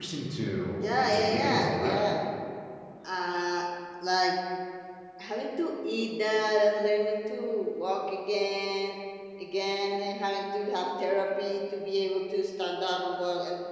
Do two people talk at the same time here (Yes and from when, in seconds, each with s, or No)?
Yes, from 0.8 s